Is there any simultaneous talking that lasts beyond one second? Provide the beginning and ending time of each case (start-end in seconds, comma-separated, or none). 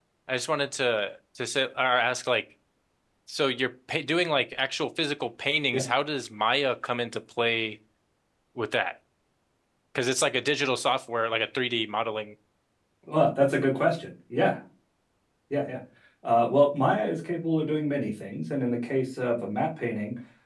none